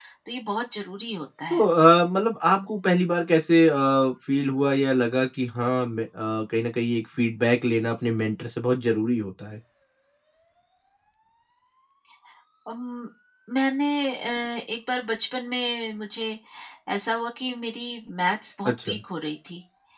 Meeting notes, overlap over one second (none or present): none